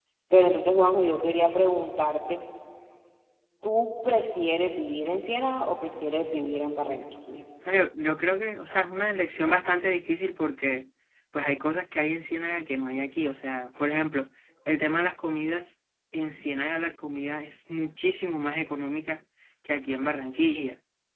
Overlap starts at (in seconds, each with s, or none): none